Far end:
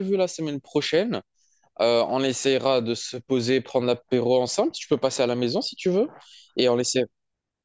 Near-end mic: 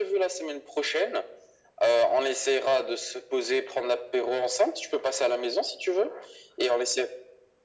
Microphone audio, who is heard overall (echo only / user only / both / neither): echo only